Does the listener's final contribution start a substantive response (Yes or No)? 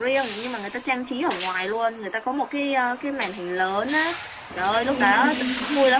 No